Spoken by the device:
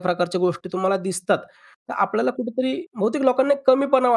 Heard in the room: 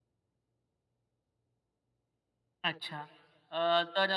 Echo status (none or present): none